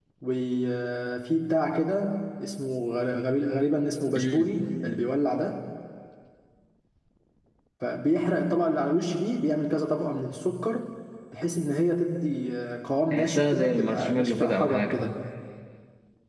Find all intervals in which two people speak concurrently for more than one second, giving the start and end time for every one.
13.1-14.9

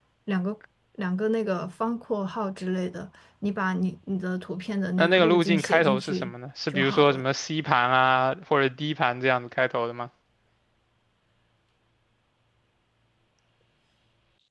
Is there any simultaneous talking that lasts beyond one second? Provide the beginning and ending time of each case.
5.0-6.3

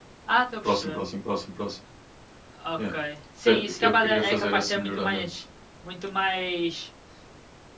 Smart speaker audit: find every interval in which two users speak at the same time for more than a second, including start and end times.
3.5-5.2

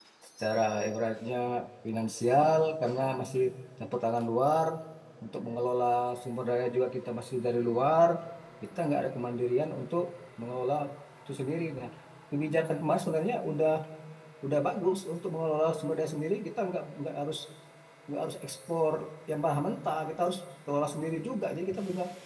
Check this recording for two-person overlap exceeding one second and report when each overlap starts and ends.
none

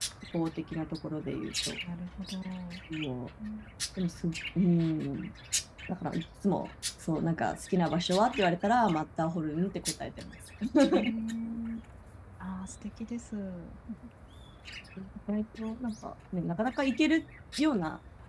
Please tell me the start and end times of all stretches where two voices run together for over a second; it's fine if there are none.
none

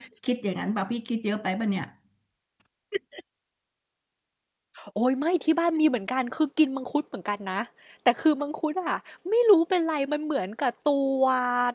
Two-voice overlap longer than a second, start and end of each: none

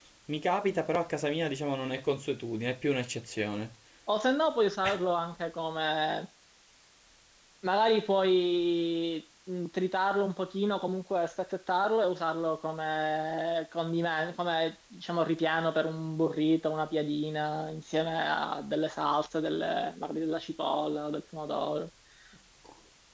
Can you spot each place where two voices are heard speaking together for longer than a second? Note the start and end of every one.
none

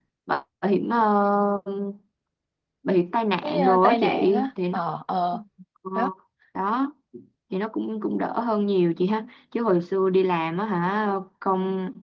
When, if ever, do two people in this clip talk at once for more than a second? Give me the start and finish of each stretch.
3.4-4.8

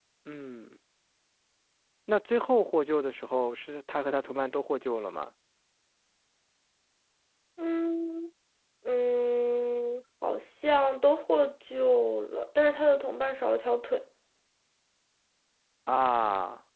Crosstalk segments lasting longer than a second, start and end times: none

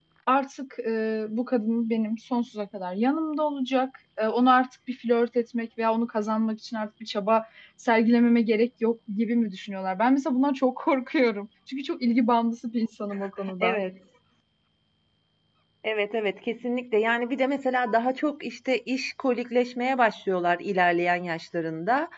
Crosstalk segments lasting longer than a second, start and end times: none

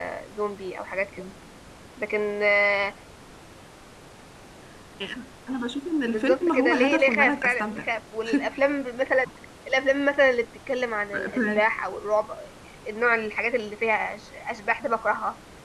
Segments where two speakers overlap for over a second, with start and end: 6.1-7.9

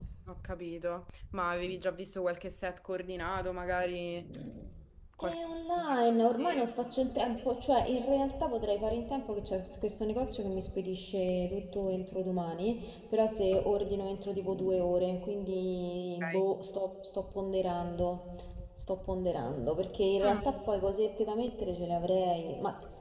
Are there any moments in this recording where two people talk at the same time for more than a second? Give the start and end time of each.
none

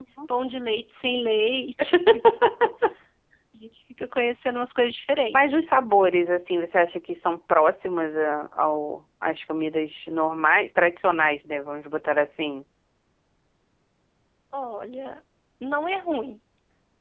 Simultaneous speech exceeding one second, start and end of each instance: none

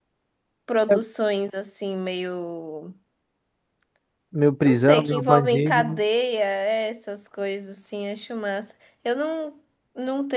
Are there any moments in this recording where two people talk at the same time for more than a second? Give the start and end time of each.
4.6-6.0

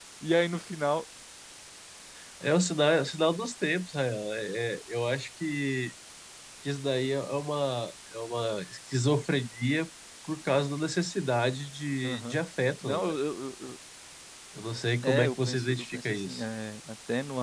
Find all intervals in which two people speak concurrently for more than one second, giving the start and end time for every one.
15.0-16.4

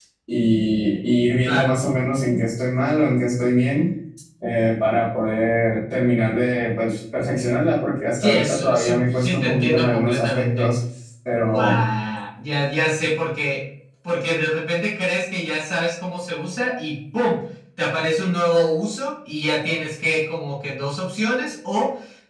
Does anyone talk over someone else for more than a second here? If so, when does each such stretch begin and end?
8.2-10.8

